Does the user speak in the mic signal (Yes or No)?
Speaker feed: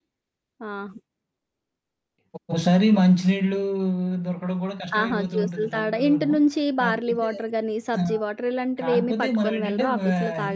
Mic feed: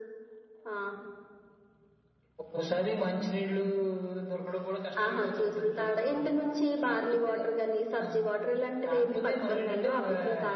No